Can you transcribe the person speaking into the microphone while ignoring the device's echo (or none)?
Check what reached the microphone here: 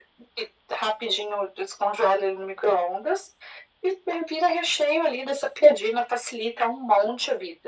none